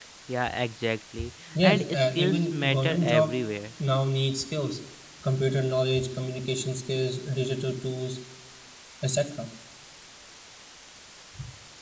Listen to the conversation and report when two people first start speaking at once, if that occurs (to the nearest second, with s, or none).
2 s